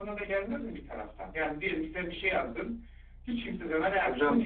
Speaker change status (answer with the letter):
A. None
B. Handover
B